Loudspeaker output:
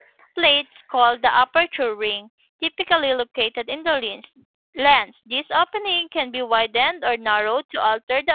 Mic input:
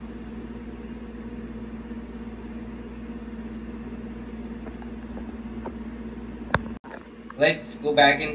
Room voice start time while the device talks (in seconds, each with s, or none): 7.4 s